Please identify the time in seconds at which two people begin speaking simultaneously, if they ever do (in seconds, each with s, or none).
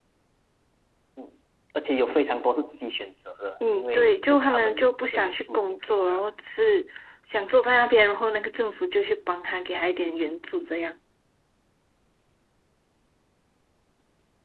3.6 s